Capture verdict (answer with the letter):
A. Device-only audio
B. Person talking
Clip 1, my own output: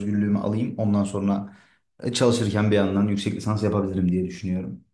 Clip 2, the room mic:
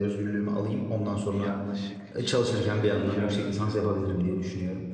B